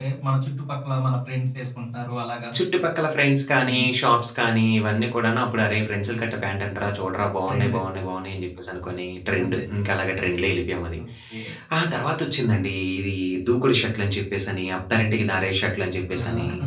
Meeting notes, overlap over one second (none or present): none